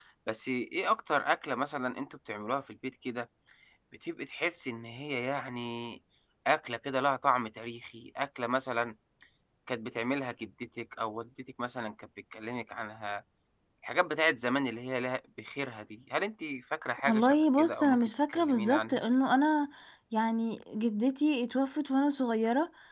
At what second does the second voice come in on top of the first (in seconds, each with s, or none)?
17.1 s